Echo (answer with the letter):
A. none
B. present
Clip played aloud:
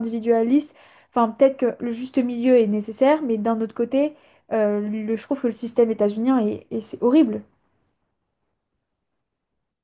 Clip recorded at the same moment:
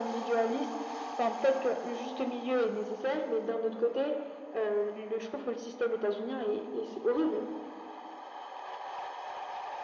B